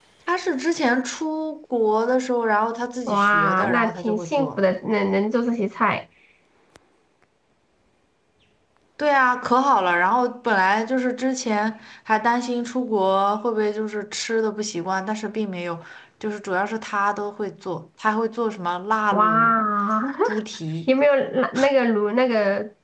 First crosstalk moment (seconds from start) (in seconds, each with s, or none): 3.1 s